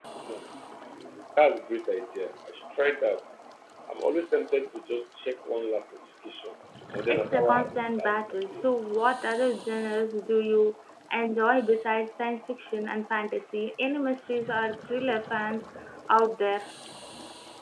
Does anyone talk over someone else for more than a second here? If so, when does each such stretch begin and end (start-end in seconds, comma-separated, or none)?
7.1-8.7